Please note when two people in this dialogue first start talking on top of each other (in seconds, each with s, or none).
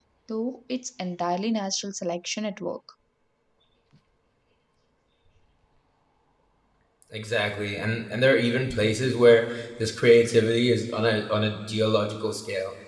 none